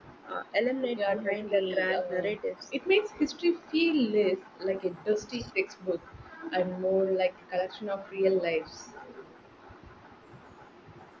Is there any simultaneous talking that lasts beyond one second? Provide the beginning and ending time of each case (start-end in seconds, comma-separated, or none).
1.0-2.3